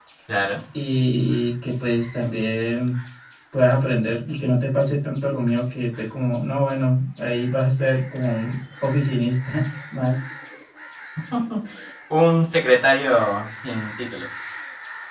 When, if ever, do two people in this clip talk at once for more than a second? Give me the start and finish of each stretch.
none

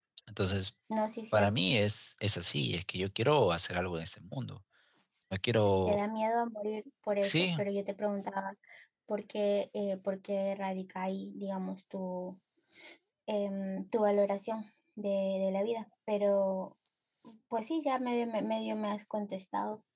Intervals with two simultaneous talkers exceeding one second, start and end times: none

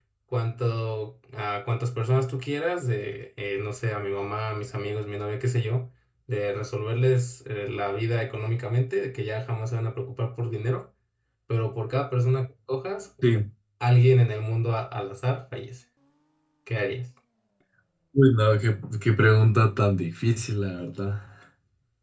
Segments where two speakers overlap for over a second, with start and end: none

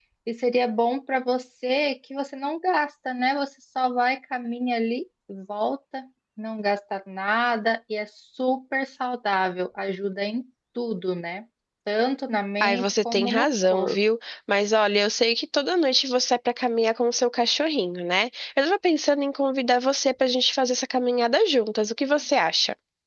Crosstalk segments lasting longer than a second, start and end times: 12.6-14.0

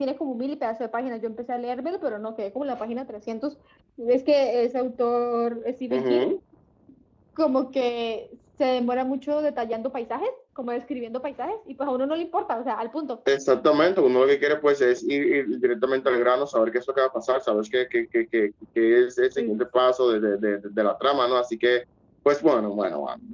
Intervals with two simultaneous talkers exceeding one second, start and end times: none

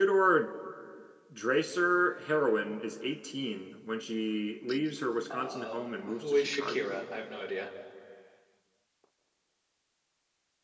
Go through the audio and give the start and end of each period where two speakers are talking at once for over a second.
5.3-7.1

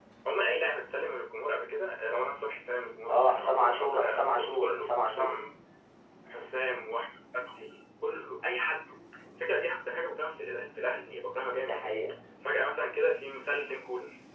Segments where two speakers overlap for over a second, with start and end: 3.1-5.4

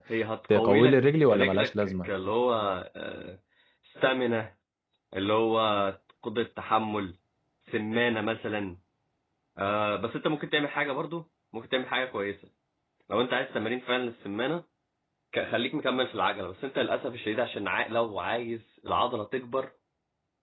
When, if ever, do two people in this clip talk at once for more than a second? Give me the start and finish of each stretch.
0.5-2.1

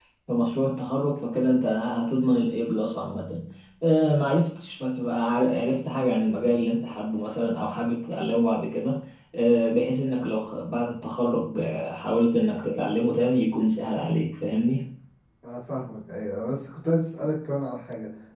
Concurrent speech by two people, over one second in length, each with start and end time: none

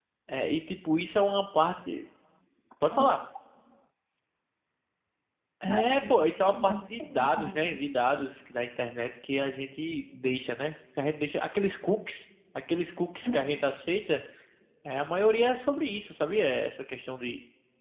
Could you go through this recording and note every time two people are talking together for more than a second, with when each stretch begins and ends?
5.7-7.8

